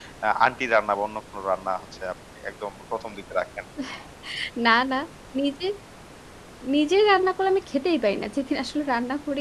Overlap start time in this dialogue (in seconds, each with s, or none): none